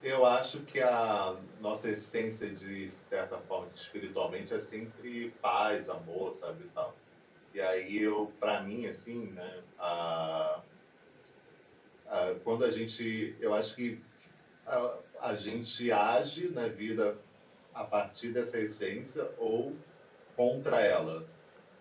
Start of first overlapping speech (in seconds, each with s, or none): none